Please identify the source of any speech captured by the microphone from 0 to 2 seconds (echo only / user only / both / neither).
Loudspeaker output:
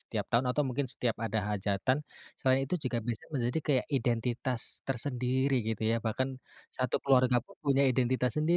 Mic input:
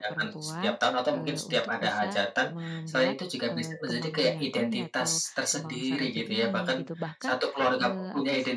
both